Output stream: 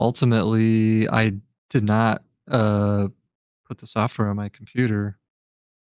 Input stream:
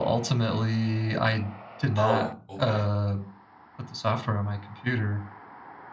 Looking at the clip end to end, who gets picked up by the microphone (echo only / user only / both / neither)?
both